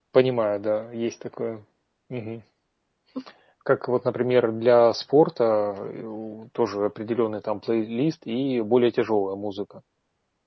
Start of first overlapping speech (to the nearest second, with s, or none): none